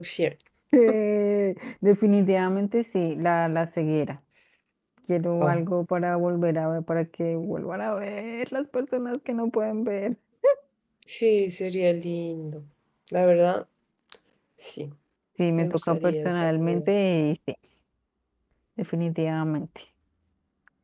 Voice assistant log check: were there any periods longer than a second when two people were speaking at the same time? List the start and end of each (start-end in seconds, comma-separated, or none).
15.6-16.9